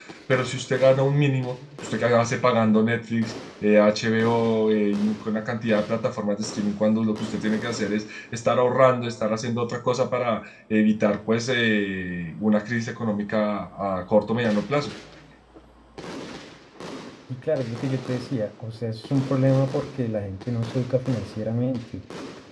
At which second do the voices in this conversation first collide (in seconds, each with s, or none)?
none